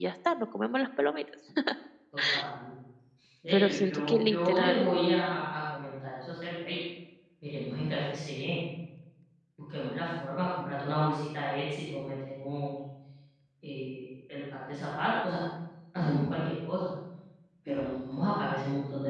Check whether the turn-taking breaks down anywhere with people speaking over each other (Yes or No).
Yes